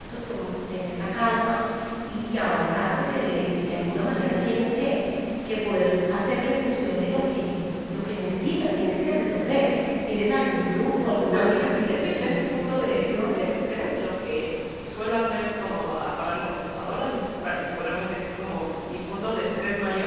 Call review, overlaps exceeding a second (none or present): present